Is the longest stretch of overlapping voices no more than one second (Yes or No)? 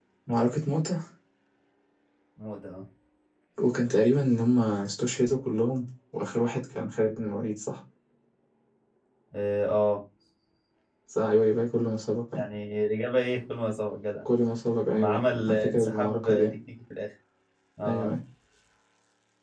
No